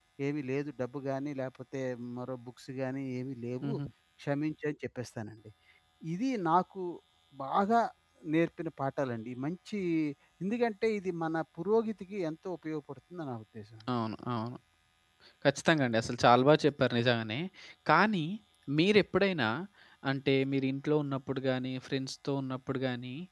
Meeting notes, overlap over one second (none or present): none